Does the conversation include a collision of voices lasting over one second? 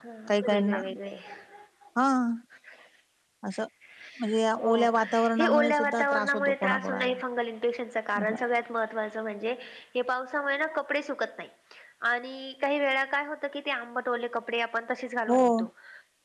Yes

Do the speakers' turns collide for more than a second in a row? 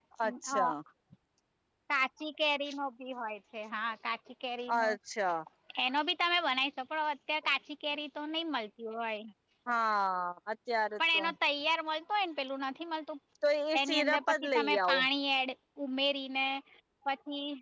Yes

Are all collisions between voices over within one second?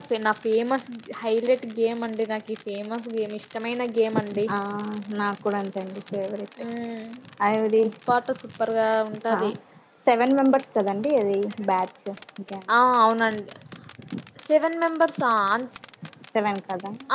Yes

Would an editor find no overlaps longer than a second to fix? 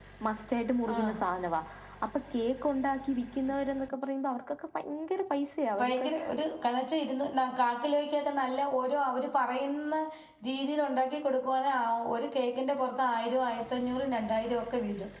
Yes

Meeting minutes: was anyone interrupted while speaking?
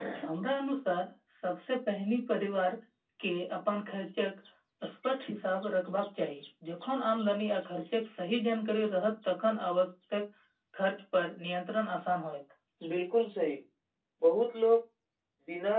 No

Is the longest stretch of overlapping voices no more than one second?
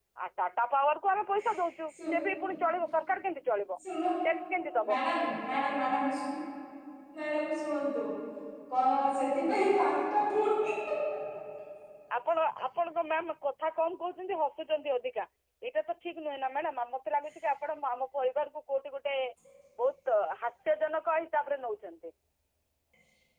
Yes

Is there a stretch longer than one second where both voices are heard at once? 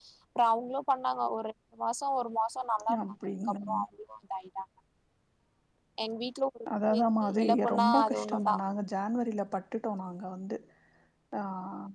Yes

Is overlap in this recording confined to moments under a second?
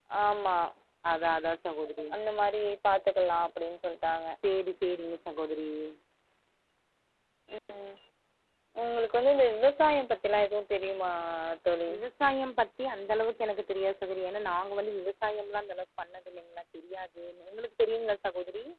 Yes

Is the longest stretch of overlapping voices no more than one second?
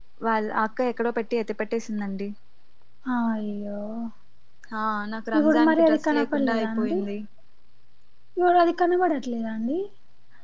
No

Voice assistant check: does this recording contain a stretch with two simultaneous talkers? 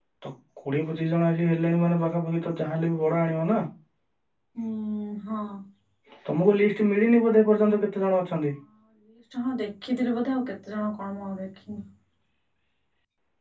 No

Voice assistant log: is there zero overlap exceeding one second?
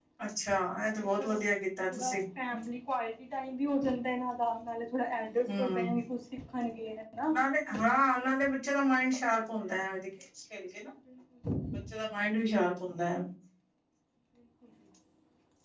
Yes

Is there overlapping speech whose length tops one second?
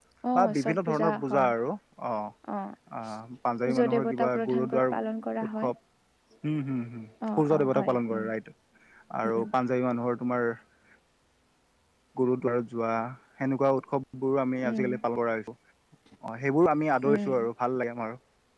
Yes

